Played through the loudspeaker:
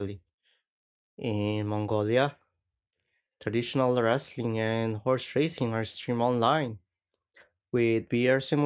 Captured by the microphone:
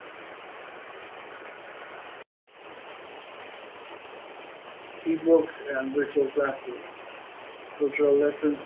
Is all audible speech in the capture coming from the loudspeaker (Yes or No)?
No